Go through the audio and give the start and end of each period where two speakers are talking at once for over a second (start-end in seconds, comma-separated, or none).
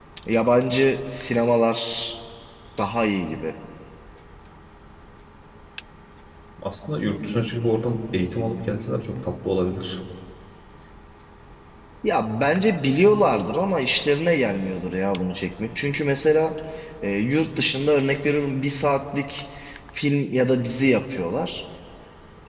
none